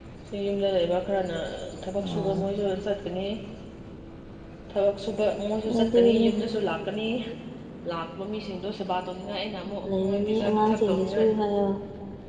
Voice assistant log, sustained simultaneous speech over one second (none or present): present